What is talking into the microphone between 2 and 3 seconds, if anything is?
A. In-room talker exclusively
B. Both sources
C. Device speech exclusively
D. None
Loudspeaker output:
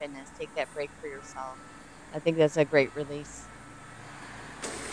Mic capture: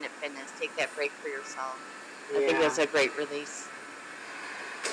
B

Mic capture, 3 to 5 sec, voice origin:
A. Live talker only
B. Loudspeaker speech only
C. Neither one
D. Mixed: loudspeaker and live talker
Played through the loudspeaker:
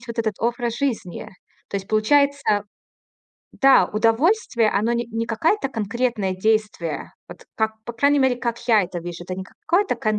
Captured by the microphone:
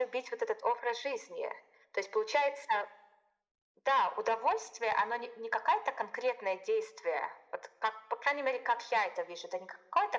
B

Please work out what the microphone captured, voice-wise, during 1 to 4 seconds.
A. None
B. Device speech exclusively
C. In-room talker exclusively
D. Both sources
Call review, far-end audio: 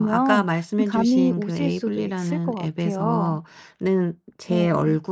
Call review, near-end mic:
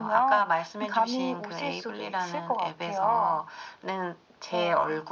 B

